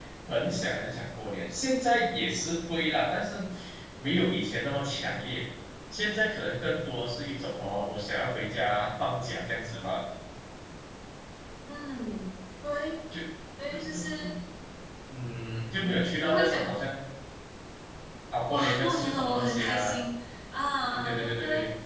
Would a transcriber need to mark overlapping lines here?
Yes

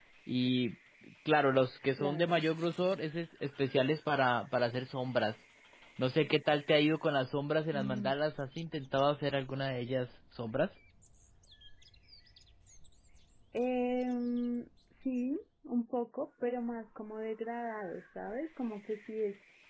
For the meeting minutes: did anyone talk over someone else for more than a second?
No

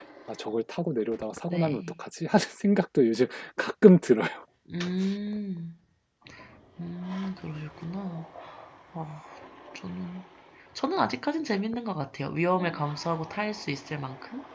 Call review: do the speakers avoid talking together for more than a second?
Yes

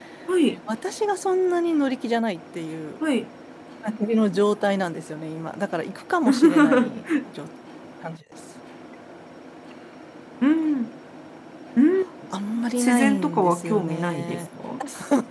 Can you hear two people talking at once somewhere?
Yes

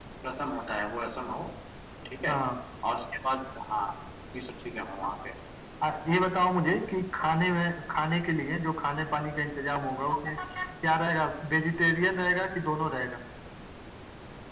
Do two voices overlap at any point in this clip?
No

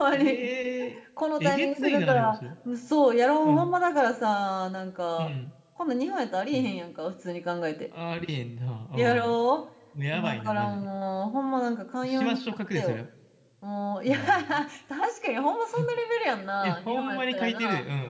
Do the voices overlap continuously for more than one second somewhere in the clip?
Yes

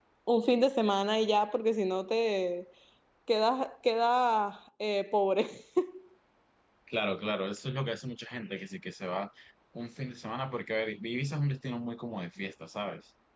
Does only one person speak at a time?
Yes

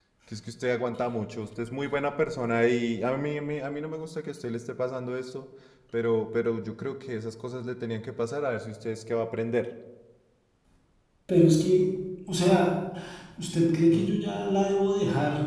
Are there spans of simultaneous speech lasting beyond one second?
No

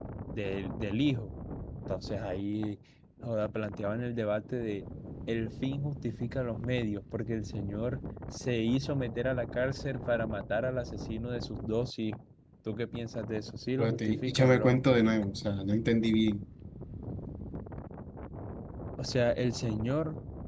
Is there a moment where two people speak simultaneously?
Yes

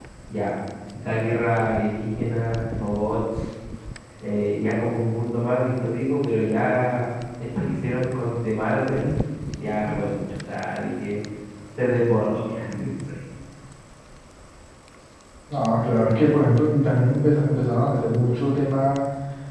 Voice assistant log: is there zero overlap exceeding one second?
Yes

